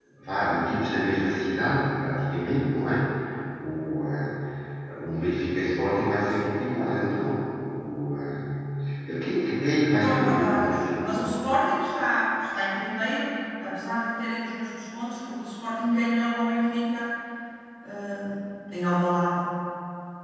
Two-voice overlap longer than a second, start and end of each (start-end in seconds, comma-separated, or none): 10.0-11.3